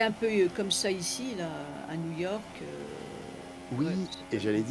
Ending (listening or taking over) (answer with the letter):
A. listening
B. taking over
B